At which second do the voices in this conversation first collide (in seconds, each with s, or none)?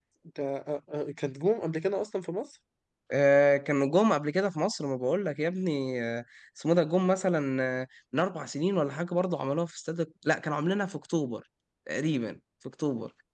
none